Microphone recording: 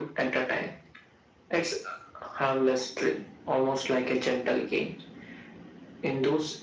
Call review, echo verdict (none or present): present